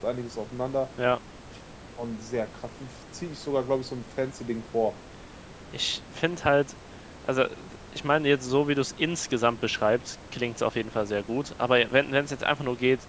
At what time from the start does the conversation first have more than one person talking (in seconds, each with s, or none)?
none